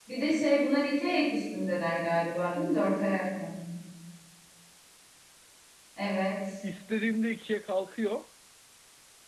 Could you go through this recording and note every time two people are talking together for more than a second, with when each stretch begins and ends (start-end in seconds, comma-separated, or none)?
none